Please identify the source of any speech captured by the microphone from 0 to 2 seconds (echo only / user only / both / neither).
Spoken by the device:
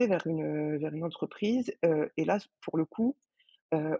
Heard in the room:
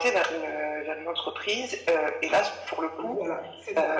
echo only